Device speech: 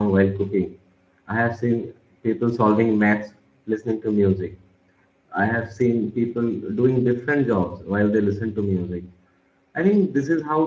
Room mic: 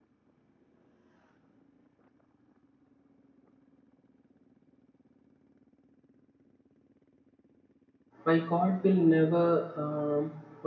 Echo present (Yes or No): No